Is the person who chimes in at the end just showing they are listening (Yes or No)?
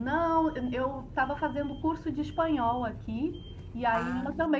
Yes